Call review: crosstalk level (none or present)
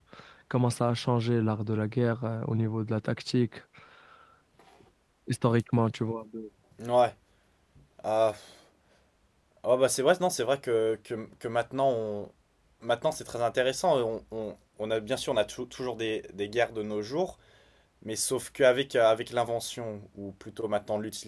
none